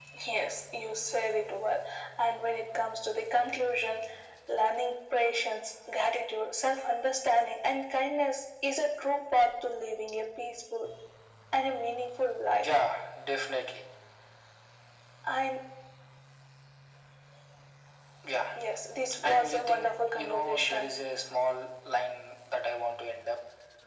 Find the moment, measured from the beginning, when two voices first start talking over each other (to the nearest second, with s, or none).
19 s